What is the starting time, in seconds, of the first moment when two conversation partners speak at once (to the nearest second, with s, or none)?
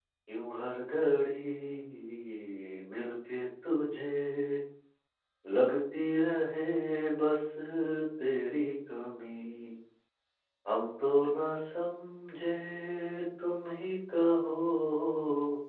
none